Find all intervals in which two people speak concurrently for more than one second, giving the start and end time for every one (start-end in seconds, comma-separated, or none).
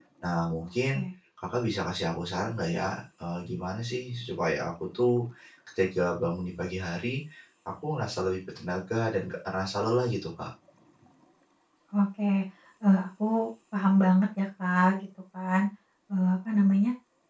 none